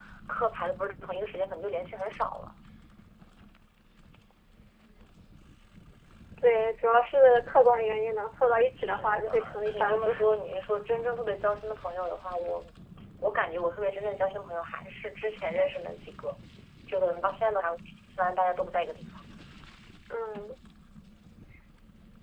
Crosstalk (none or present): present